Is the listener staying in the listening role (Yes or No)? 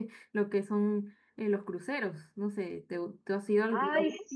No